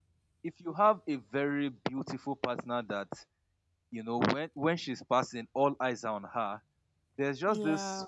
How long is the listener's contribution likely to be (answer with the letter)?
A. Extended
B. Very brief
B